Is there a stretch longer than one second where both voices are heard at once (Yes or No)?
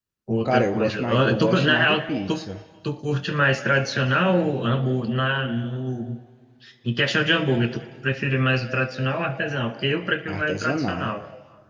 Yes